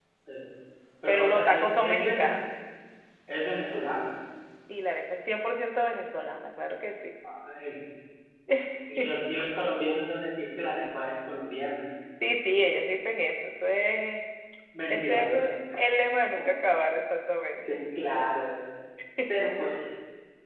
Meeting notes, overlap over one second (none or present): present